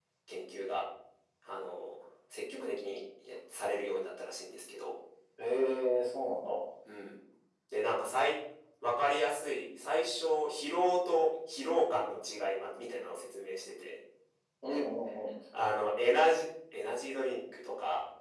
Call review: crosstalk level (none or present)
none